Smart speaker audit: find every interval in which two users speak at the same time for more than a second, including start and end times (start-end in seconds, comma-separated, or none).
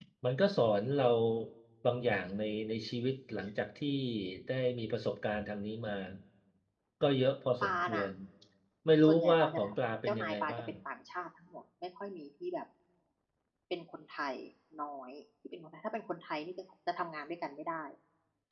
9.0-10.7